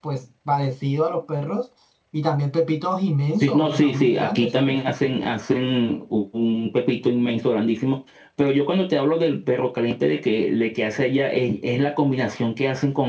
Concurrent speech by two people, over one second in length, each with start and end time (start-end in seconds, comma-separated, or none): 3.4-4.8